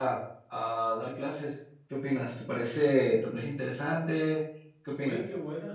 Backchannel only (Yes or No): No